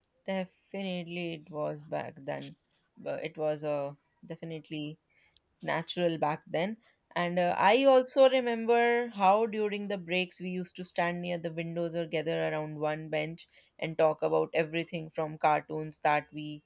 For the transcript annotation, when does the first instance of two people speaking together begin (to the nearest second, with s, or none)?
none